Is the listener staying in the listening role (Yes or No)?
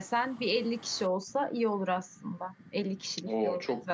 No